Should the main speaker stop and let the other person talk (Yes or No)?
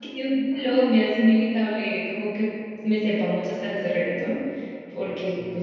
No